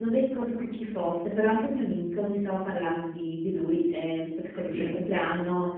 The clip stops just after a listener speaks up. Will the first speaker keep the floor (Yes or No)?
Yes